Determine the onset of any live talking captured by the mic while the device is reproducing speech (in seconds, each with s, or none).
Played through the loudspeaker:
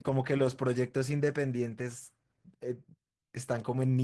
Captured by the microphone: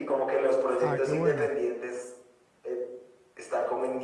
0.8 s